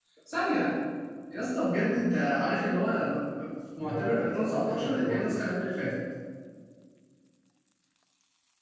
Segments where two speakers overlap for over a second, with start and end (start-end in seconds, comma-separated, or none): 3.8-5.2